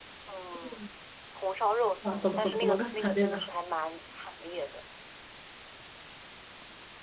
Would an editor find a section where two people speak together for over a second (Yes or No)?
Yes